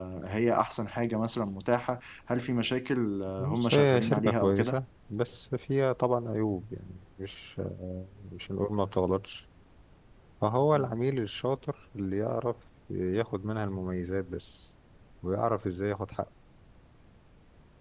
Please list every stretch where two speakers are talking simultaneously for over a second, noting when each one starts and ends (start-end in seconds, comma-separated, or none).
3.4-4.8